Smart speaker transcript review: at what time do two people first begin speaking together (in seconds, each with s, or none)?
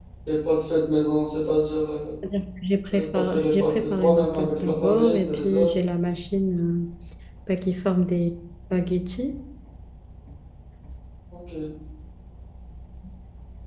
2.9 s